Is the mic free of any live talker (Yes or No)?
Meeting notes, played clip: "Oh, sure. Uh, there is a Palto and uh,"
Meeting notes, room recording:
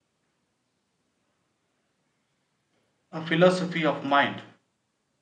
No